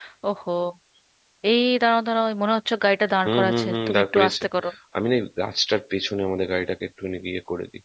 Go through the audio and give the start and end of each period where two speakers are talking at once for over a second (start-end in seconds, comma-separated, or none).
3.2-4.4